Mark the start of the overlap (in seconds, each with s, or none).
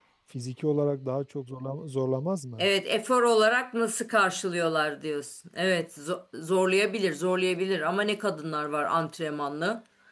none